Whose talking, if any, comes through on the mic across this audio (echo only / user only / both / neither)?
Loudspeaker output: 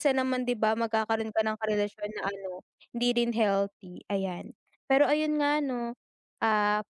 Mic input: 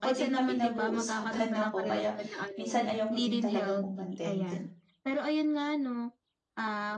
both